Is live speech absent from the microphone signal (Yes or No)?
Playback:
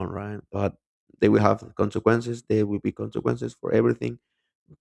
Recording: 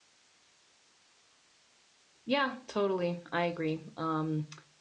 No